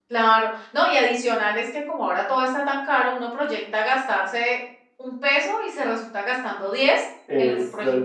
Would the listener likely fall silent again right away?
No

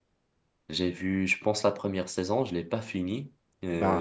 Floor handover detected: No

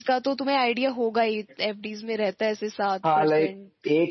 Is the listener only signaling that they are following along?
No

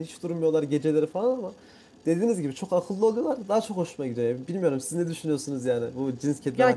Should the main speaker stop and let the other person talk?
Yes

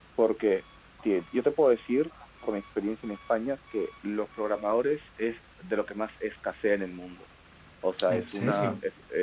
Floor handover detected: No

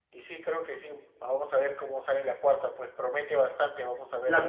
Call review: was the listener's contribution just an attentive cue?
No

